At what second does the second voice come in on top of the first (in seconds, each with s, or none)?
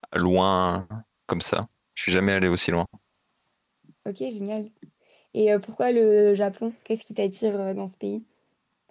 none